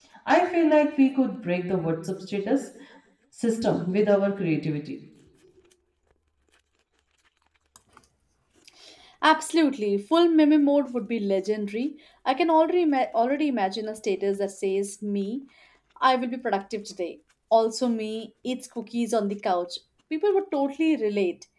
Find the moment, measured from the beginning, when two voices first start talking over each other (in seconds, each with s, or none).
none